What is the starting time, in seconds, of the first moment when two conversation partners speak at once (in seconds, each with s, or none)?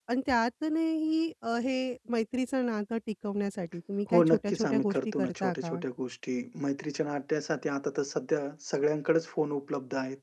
4.1 s